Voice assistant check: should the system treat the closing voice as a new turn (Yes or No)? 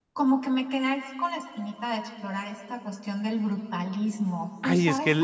Yes